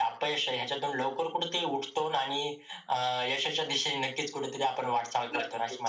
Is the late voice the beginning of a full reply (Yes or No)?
Yes